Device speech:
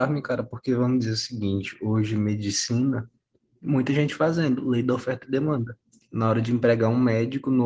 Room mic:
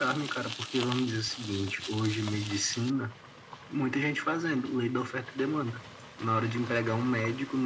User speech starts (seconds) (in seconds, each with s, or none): none